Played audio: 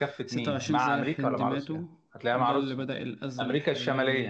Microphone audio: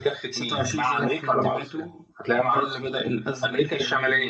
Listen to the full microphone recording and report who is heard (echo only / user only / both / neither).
echo only